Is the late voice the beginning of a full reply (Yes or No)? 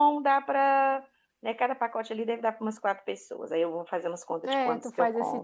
Yes